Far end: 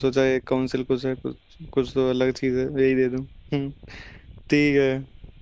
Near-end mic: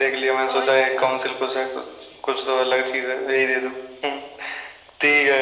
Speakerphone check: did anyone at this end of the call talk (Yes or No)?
Yes